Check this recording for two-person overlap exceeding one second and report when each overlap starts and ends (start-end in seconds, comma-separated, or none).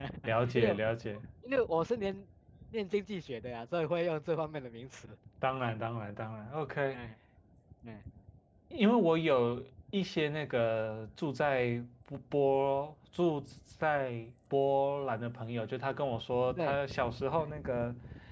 none